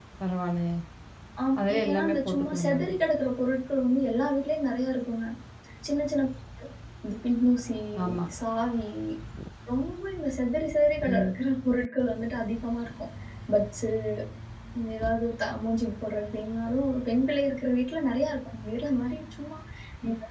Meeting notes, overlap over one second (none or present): present